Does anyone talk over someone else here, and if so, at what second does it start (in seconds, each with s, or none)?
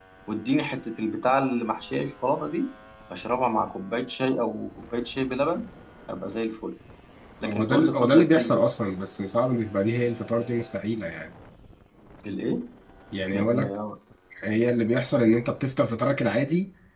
7.4 s